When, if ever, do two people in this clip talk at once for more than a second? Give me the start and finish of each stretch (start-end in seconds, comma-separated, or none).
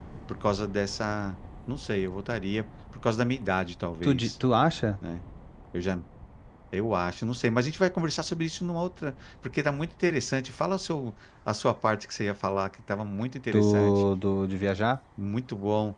none